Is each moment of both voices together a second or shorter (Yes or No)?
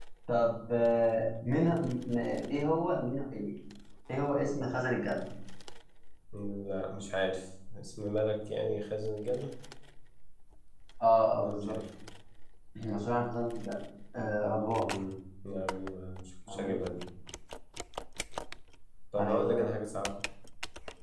Yes